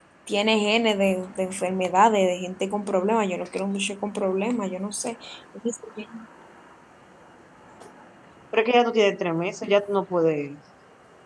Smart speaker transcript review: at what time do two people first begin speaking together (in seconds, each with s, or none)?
none